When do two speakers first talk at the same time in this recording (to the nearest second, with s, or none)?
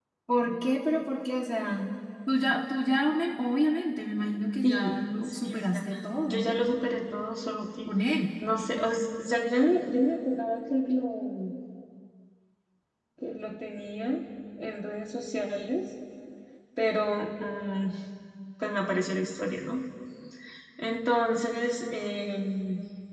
5 s